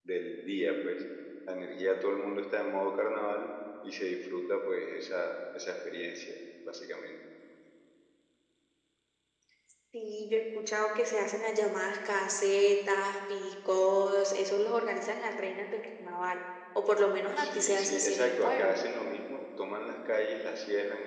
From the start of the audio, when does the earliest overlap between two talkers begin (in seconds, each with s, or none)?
17.4 s